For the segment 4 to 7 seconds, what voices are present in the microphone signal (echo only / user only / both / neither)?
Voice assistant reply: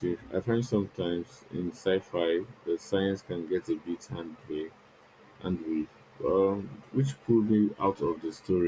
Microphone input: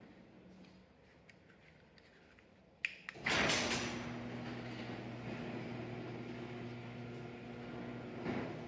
neither